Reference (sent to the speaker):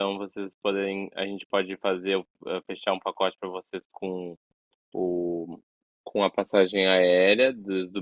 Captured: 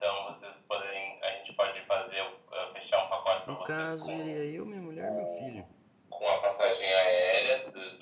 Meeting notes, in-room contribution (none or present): present